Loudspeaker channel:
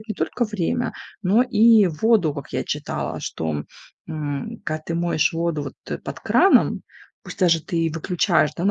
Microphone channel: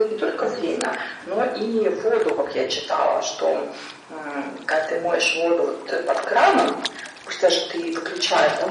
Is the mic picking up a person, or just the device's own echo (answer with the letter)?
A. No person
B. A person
A